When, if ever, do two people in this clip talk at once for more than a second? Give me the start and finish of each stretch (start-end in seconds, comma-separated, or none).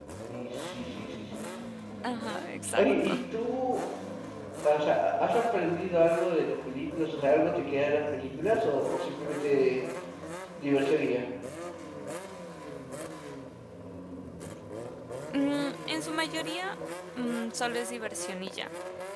none